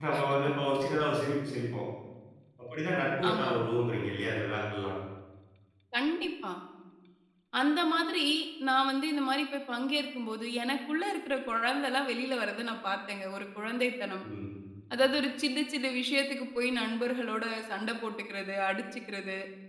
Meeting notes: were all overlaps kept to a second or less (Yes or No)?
Yes